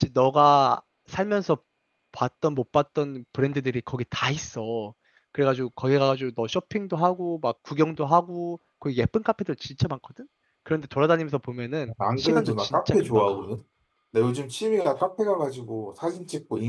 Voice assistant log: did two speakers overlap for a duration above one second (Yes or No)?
Yes